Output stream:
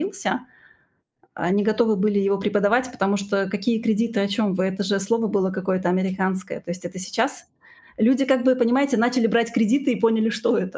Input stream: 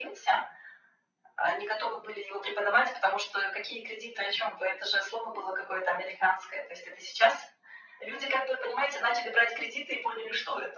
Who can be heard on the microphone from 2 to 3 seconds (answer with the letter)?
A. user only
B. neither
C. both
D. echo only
D